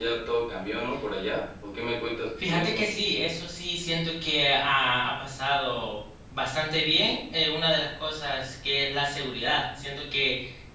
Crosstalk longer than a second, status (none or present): none